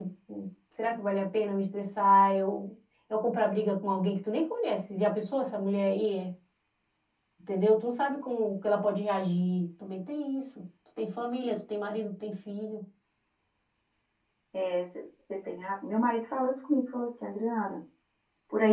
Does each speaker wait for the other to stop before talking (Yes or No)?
Yes